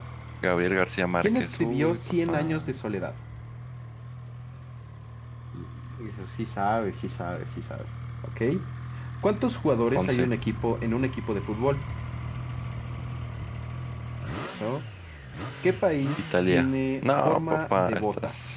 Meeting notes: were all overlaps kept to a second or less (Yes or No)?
No